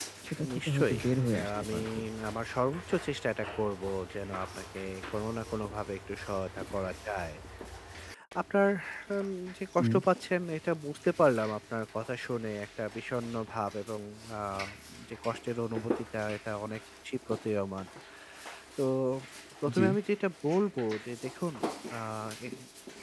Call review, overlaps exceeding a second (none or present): present